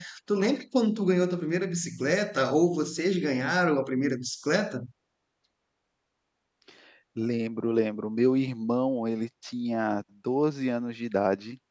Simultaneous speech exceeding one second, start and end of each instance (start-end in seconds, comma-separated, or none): none